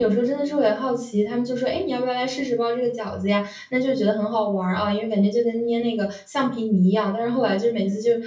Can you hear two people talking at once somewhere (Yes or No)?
No